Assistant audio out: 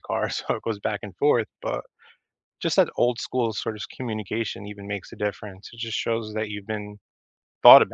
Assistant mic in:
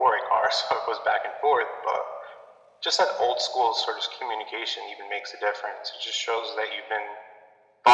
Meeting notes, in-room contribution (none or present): none